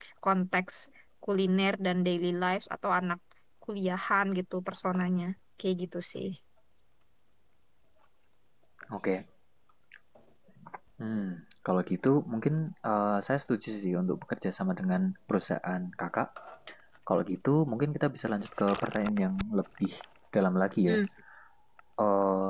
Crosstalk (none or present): none